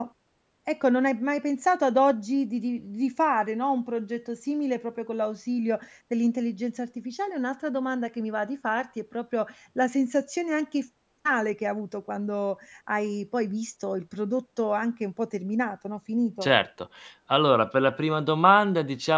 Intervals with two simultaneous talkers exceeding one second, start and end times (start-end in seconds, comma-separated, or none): none